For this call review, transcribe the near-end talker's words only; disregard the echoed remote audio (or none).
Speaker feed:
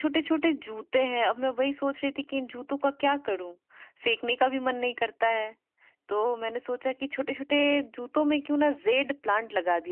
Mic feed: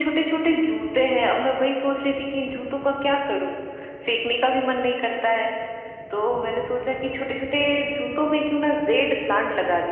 none